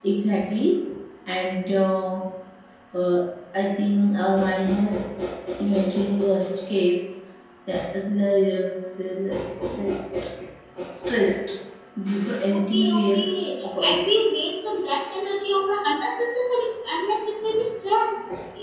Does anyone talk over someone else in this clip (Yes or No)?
Yes